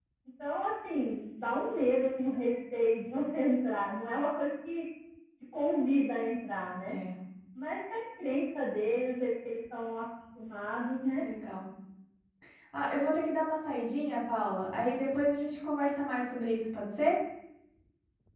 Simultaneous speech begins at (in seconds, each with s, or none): none